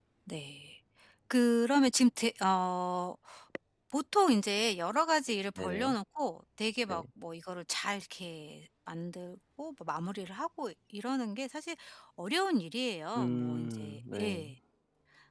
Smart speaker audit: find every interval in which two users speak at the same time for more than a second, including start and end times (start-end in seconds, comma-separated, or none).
13.2-14.4